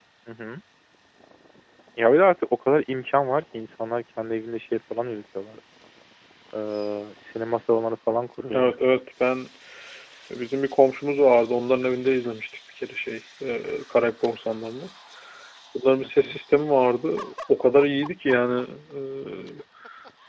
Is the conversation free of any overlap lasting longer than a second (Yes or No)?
Yes